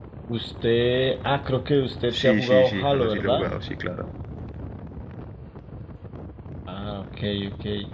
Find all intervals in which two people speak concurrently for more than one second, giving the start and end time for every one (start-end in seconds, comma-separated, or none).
2.2-3.5